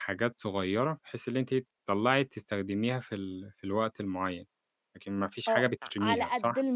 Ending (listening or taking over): taking over